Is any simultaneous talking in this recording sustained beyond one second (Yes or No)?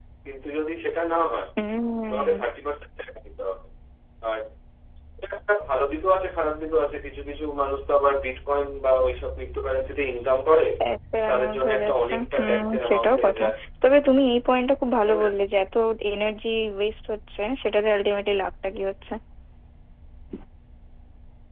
Yes